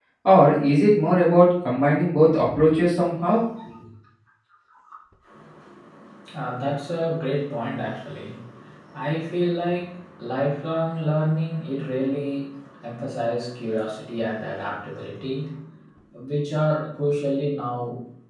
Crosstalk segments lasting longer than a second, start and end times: none

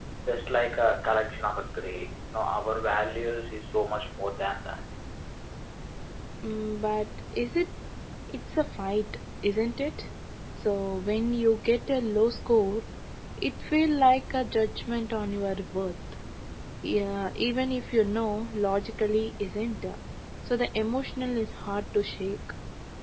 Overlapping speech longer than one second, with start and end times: none

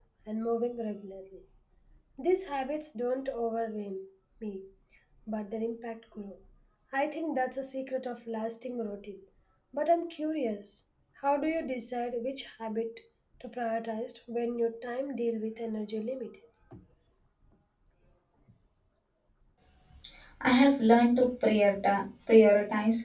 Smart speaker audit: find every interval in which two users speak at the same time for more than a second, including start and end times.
none

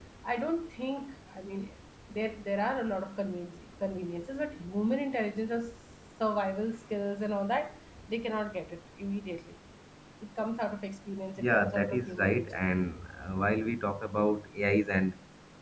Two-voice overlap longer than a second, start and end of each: 11.4-12.6

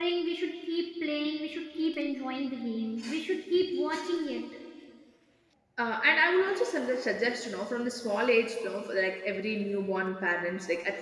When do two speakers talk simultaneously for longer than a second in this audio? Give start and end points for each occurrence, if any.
none

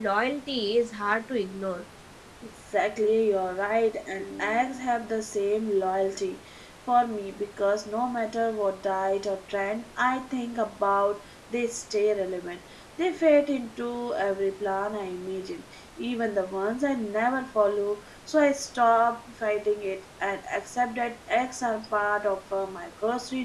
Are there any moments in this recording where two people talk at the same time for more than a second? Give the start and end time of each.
none

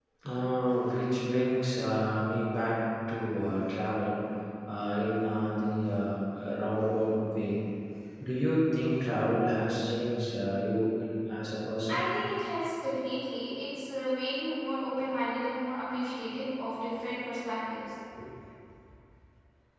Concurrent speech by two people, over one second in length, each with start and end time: none

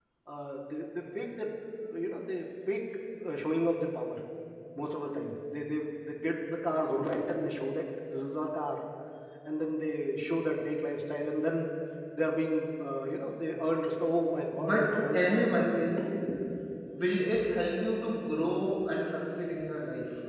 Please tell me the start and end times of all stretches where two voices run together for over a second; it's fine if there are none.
14.6-15.9

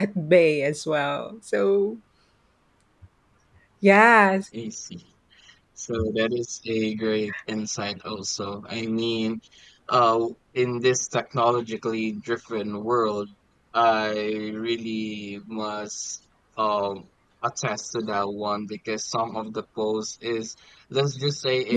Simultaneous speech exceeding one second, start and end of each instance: none

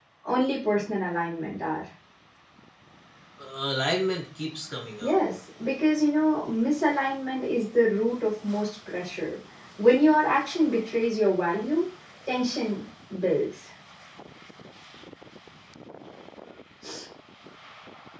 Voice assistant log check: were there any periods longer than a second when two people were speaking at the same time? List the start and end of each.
none

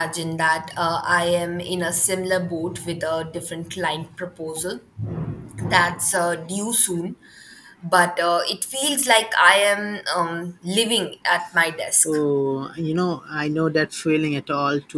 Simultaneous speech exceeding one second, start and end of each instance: none

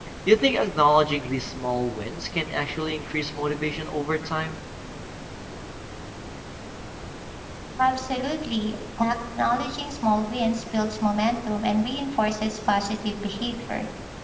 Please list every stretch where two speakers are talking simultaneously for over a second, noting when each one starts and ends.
none

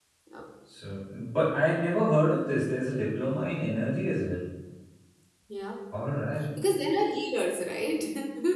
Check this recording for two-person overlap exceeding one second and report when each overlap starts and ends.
none

